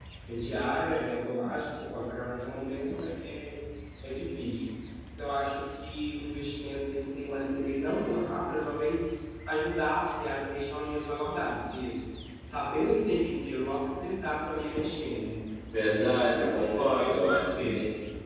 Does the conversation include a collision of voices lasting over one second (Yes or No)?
Yes